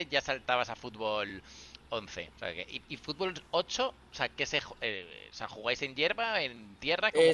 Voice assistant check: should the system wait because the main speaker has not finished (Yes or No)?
No